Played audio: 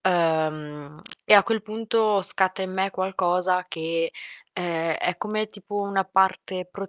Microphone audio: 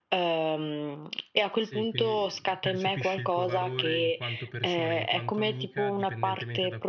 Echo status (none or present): present